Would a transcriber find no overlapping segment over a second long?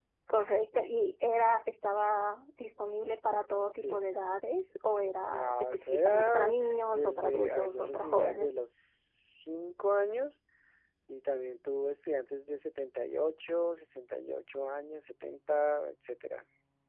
No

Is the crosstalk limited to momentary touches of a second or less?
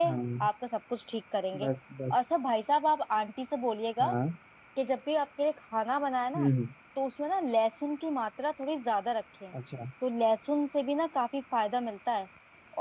Yes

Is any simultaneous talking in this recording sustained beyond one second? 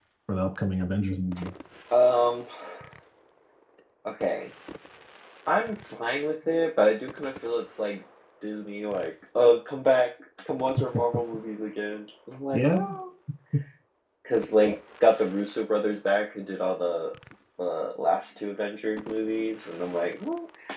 No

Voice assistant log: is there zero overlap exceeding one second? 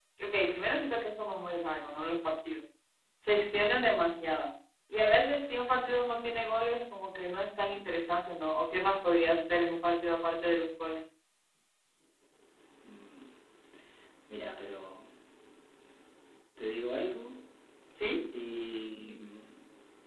Yes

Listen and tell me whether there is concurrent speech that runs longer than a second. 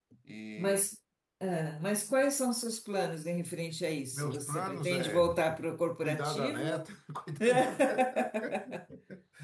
Yes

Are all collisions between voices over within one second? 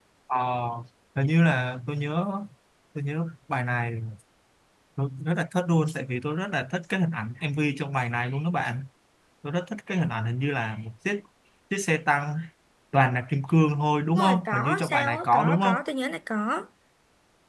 No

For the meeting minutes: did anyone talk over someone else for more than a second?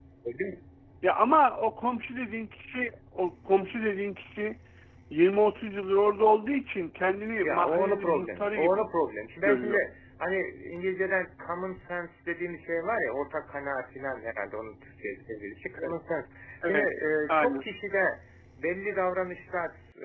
Yes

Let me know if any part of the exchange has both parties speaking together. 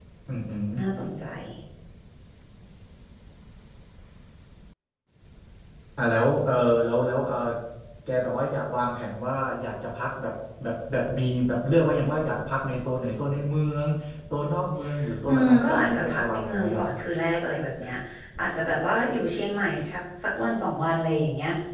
Yes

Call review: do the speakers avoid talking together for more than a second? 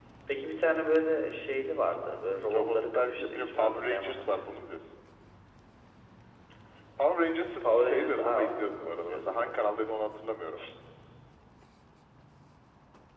No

